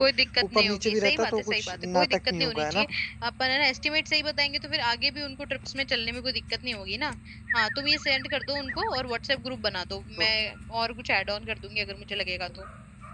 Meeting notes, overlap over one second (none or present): present